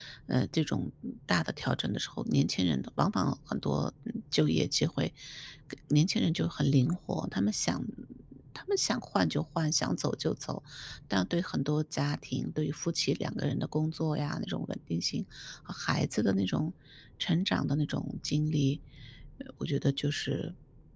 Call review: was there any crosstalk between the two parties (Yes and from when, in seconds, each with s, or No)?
No